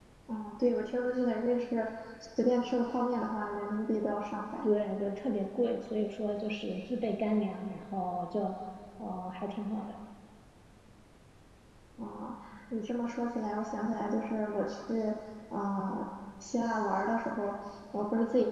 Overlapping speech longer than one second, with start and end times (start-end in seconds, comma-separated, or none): none